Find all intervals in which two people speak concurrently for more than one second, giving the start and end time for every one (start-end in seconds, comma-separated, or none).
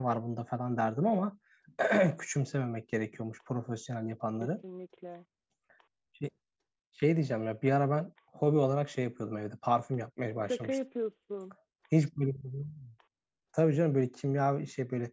none